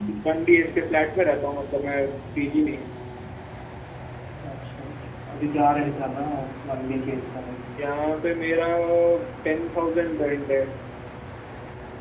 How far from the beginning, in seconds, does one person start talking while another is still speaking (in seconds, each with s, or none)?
none